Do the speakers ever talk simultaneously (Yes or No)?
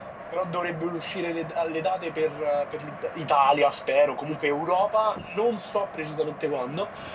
No